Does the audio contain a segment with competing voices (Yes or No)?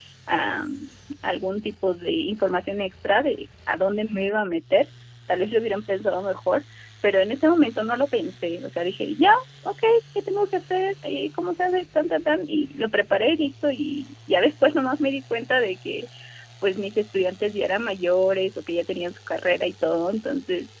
No